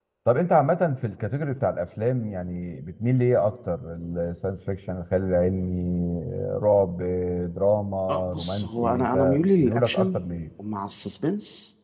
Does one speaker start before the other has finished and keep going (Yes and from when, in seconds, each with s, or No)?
Yes, from 8.1 s